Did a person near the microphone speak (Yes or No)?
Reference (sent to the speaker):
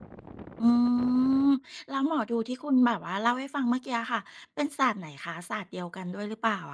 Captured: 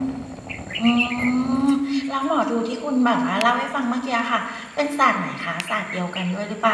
No